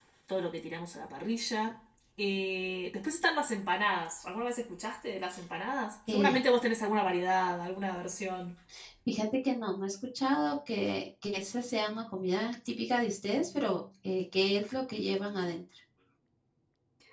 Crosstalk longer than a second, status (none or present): none